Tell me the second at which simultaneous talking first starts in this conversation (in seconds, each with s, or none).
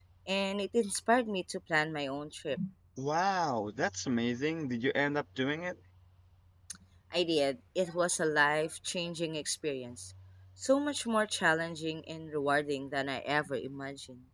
none